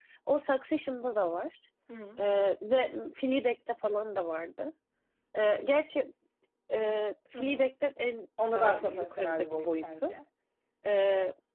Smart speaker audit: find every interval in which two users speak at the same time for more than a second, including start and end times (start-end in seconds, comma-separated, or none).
8.5-10.1